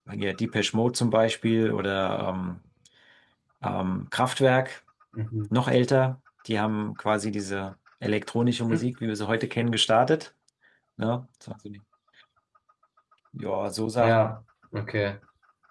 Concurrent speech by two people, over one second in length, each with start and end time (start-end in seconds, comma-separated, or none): none